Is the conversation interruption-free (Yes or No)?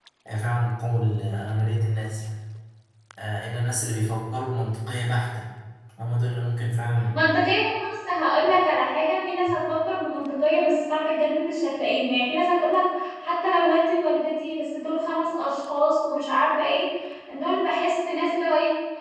Yes